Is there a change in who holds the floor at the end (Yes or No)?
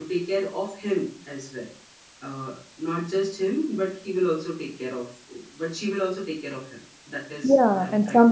Yes